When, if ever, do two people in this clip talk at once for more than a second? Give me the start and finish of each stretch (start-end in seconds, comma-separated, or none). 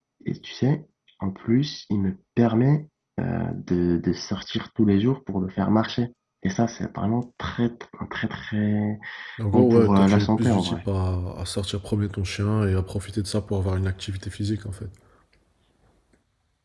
9.5-10.8